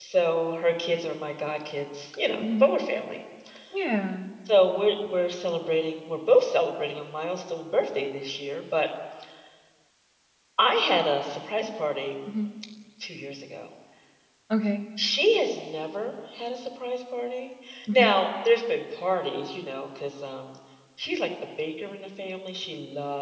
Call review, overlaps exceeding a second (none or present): none